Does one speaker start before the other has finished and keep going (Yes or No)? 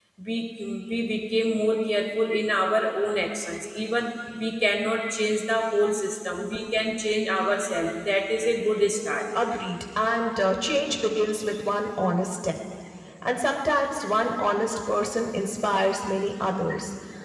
No